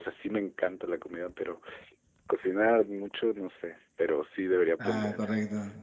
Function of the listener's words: taking over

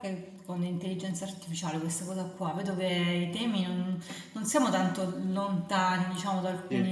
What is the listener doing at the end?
listening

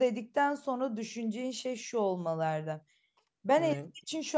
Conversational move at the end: listening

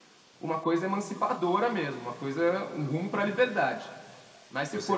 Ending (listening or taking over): listening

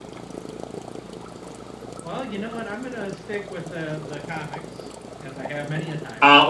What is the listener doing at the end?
taking over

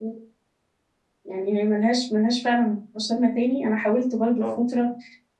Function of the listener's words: listening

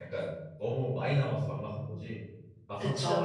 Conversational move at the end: listening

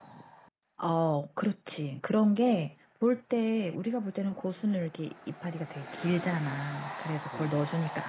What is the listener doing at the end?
listening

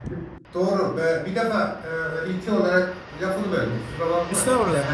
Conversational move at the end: listening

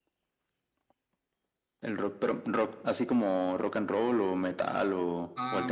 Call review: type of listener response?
taking over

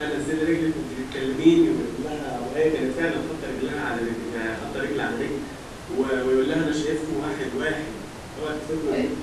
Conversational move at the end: taking over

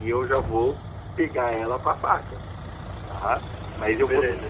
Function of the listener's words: listening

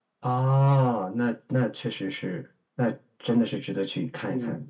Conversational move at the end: taking over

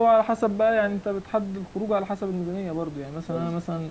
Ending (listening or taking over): listening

